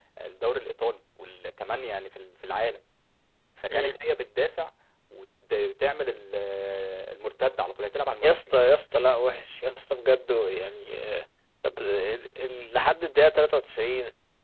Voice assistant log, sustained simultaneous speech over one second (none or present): none